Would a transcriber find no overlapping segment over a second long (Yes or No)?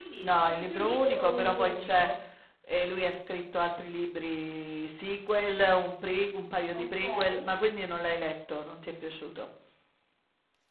No